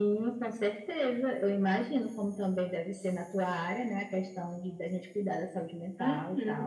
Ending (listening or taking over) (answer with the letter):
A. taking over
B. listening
A